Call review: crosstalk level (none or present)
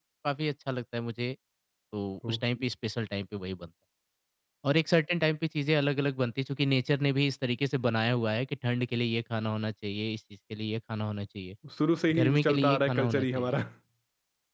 present